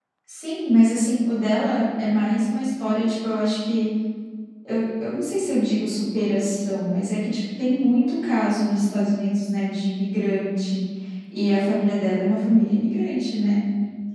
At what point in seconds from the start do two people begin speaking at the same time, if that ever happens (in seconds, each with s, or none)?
none